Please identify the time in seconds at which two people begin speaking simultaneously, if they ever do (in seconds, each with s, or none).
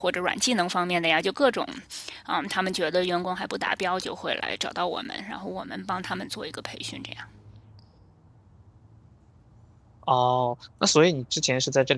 none